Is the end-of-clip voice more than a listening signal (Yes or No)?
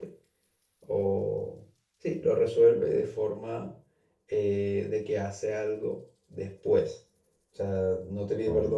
No